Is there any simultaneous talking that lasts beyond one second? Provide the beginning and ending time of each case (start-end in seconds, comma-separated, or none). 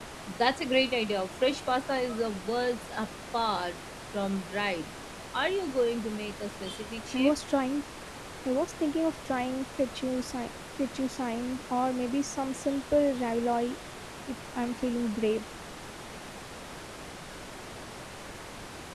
none